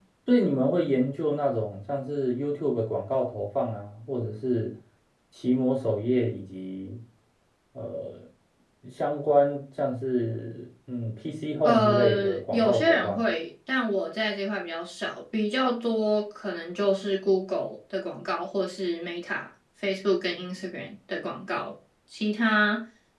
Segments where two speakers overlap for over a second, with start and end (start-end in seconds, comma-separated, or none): 11.6-13.3